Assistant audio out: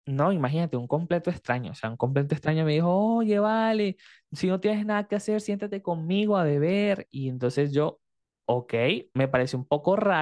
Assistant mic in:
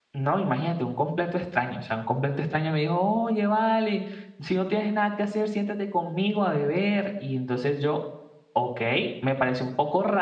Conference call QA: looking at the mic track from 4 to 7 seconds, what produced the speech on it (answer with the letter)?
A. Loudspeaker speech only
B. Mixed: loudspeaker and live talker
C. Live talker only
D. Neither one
A